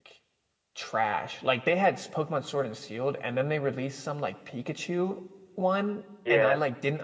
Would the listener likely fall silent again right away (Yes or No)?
Yes